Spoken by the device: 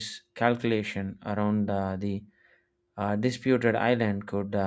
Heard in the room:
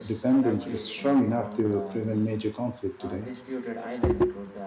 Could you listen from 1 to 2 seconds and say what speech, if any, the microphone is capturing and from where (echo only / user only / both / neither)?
both